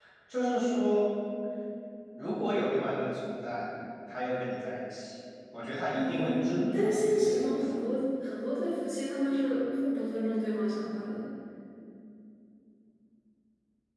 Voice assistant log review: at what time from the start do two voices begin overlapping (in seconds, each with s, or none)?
5.9 s